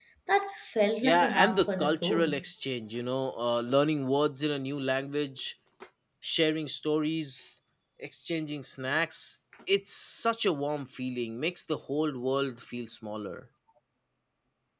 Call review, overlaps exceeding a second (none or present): present